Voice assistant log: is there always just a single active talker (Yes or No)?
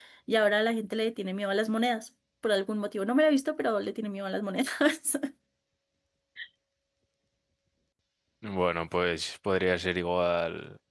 Yes